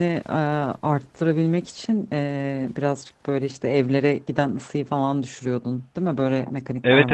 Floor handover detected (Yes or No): Yes